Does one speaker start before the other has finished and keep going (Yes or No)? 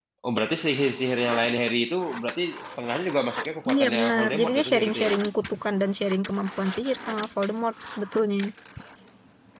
Yes